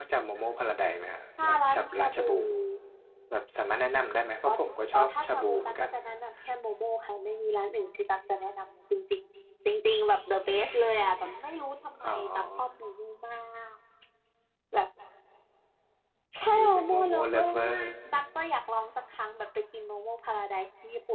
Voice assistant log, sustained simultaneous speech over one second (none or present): present